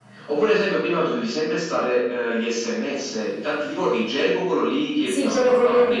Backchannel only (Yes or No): No